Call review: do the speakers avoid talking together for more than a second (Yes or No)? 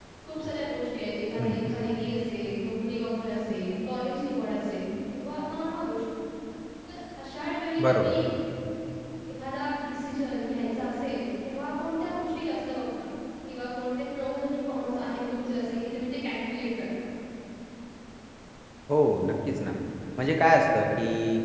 Yes